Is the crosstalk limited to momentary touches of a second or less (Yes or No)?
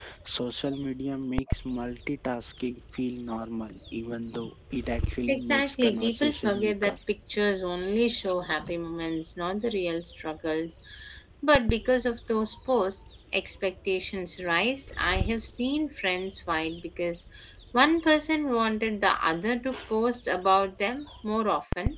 No